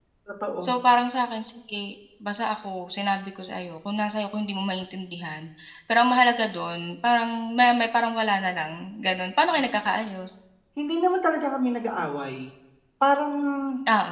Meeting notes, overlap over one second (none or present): none